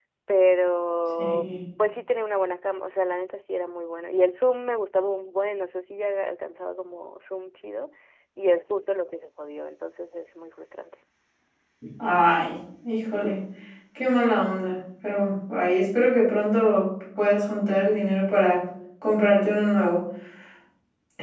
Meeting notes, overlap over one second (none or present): none